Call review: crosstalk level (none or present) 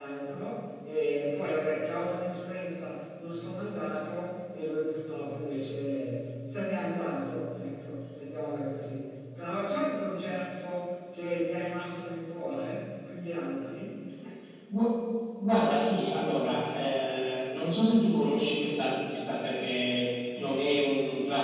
none